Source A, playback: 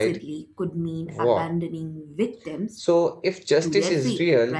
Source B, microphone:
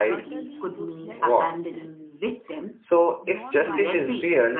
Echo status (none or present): present